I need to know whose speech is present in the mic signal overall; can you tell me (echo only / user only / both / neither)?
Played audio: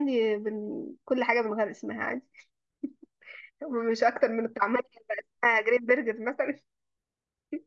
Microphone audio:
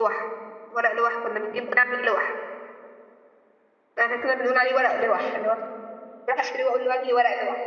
user only